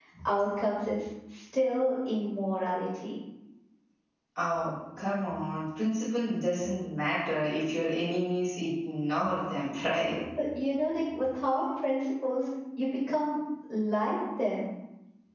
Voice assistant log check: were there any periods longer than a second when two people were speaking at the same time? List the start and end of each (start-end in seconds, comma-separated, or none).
none